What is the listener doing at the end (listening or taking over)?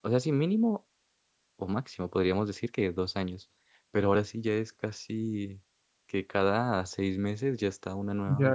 taking over